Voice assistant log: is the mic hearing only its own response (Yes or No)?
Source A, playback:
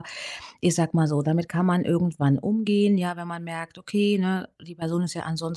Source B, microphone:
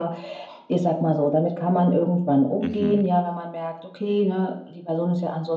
No